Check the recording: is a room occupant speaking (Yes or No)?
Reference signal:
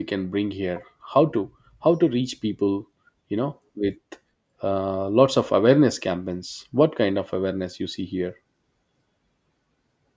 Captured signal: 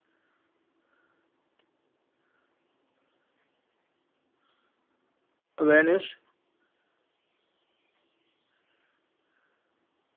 Yes